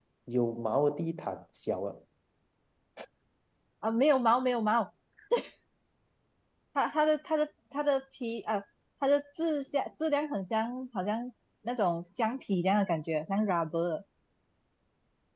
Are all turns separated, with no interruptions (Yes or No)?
Yes